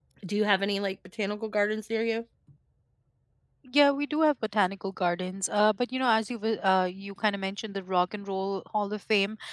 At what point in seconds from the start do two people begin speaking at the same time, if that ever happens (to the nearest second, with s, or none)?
none